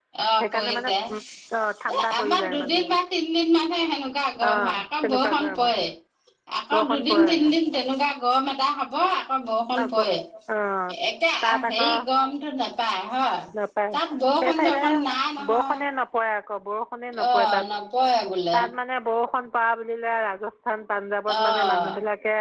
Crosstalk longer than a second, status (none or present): present